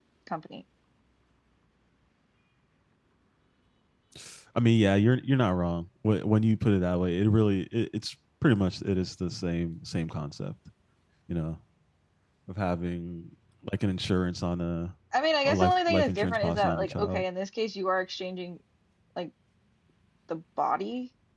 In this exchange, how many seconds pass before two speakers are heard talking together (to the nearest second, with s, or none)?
15 s